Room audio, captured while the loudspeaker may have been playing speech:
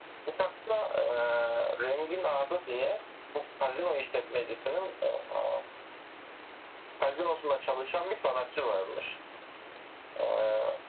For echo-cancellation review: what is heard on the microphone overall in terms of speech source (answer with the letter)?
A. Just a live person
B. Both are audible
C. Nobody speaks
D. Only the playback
D